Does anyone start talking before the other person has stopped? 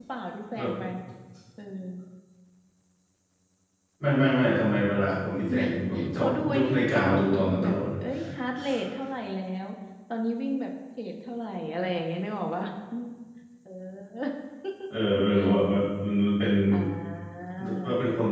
Yes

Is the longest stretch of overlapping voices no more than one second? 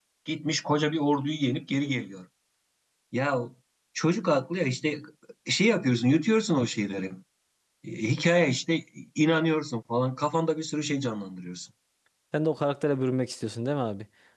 Yes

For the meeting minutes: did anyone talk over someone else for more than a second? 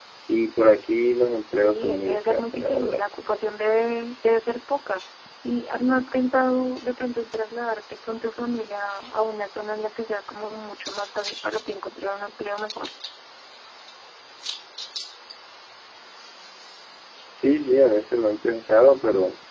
Yes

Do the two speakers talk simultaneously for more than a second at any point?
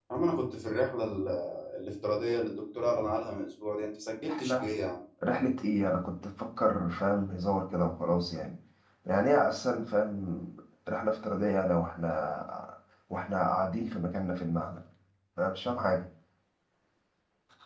No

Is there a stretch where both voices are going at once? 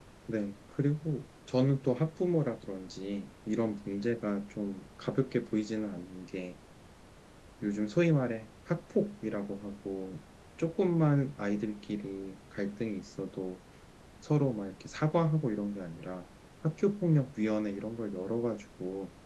No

